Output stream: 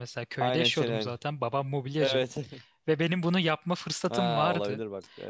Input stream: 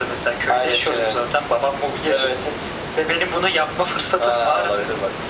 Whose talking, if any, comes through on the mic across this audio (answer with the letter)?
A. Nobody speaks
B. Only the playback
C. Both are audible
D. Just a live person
B